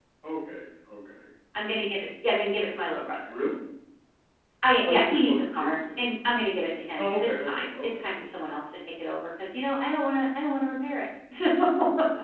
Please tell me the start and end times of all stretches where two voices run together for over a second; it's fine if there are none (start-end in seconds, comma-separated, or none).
4.8-6.1, 7.0-8.5